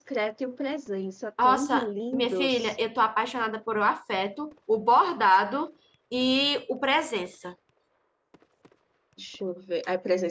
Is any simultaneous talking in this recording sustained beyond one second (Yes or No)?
Yes